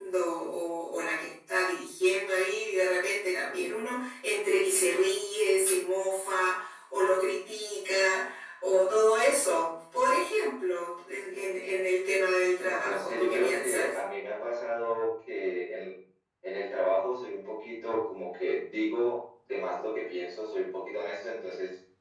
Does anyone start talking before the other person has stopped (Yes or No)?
Yes